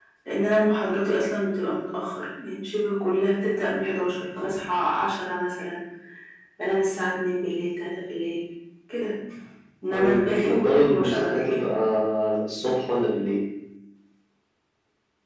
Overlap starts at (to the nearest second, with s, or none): 10 s